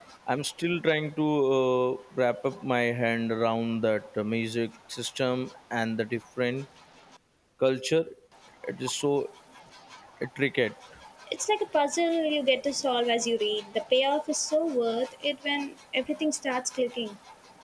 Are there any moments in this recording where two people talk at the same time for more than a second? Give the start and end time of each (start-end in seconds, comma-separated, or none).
none